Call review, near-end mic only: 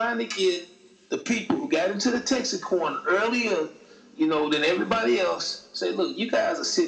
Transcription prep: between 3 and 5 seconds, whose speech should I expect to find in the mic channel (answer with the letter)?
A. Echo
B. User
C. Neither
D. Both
A